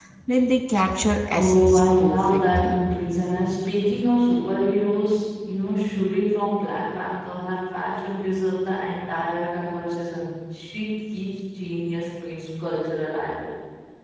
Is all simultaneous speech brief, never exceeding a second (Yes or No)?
No